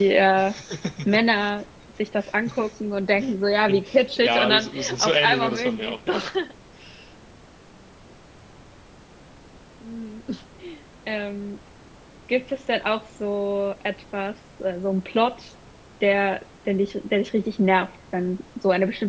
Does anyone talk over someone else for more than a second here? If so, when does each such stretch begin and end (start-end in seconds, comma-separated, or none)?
3.7-6.2